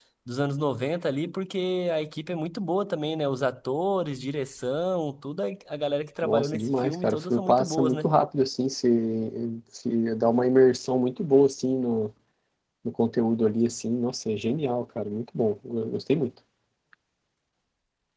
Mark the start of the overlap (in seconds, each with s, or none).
6.2 s